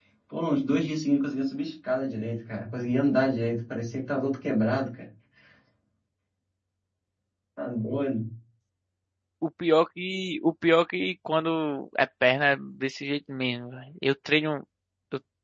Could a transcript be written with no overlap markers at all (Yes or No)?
Yes